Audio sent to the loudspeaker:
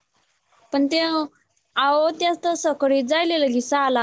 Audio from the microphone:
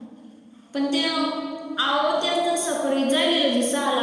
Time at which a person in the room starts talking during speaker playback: none

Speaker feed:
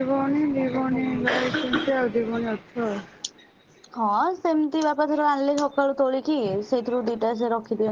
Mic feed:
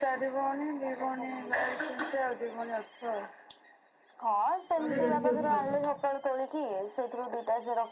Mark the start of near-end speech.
4.8 s

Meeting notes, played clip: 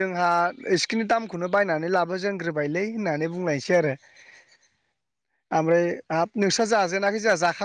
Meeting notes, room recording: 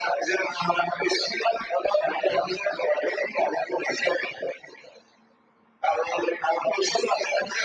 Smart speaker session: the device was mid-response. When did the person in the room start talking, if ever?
none

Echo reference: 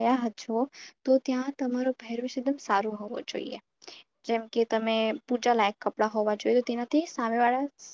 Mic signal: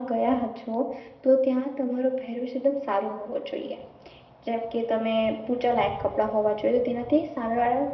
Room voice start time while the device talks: none

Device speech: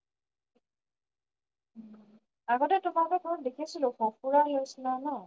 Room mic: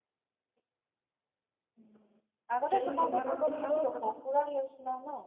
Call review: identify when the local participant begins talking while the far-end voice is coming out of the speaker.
2.7 s

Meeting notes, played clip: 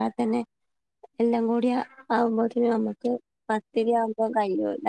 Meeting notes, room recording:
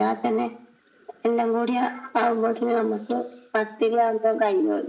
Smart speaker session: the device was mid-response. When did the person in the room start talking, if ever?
none

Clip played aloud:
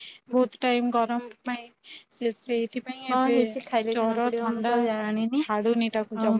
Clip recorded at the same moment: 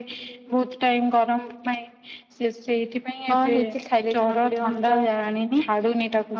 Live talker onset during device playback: none

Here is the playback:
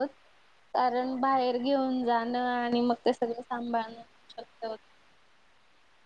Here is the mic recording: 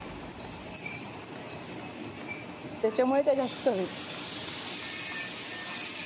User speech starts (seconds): 2.8 s

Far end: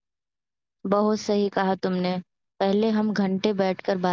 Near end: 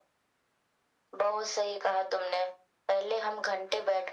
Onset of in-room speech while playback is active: none

